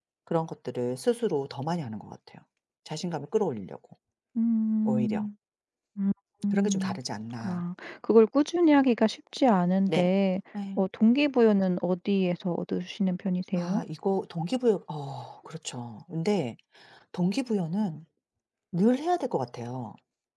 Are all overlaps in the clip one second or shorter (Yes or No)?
Yes